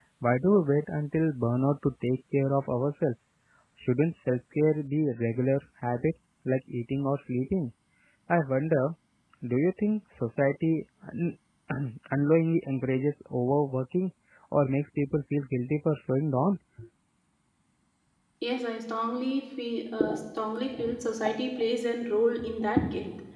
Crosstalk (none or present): none